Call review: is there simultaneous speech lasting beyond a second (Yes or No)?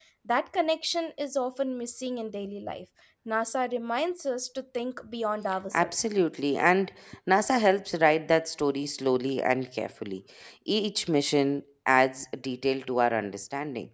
No